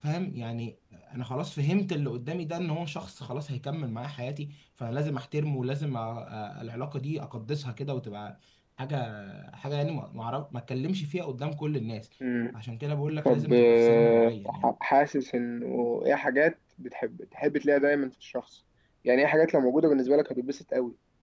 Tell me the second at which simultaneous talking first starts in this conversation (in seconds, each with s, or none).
13.2 s